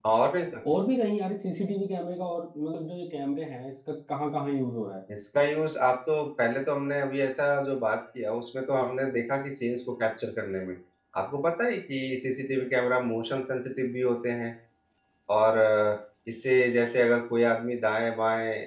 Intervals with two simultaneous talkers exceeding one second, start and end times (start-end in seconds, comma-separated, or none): none